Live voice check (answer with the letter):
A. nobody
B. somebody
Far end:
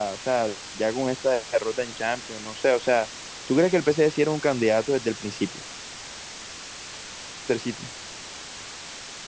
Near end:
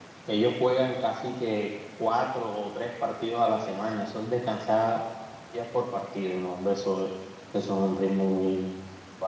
B